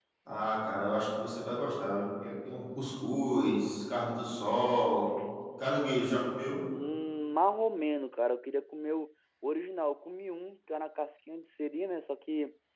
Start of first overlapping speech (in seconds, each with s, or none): none